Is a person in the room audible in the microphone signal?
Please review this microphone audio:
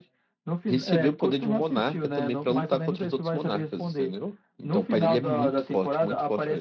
Yes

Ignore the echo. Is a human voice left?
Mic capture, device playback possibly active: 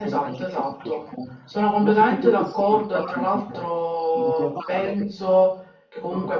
Yes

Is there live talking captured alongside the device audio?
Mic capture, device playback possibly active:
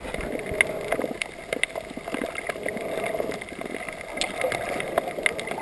No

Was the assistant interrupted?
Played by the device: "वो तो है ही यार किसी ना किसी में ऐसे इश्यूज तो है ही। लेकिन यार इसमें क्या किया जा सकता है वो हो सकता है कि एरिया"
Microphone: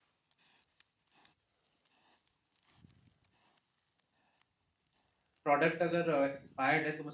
Yes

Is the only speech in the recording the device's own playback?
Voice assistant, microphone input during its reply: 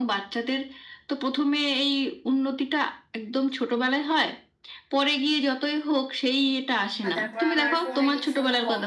No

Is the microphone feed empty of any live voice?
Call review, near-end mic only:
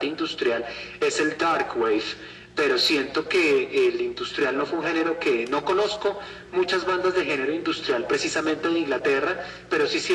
Yes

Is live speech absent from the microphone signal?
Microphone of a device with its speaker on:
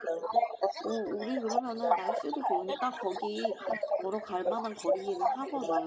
No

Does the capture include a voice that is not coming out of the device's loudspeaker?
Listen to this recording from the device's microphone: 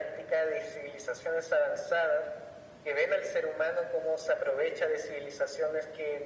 No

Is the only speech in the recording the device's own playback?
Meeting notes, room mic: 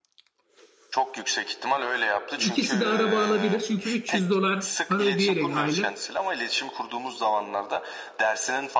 No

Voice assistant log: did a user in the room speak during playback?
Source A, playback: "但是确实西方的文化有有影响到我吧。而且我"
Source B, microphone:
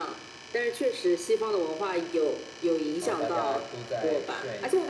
Yes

